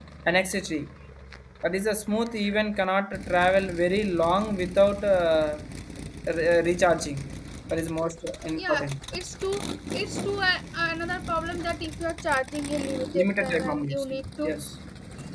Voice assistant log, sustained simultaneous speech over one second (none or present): present